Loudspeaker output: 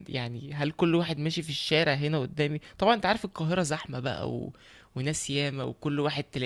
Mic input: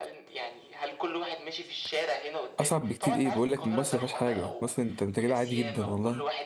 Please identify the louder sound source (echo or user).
user